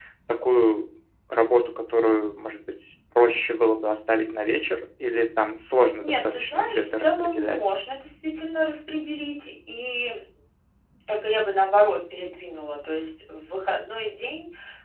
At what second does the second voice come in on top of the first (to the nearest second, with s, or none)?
6 s